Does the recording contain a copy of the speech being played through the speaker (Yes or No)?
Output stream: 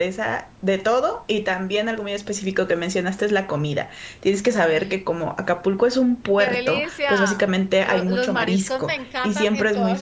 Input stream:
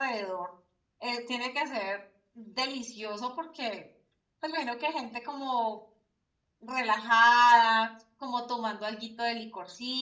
No